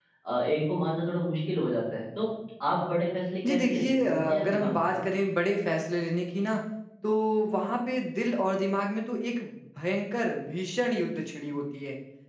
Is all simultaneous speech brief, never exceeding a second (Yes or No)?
No